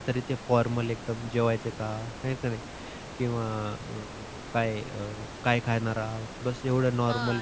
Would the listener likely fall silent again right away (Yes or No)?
No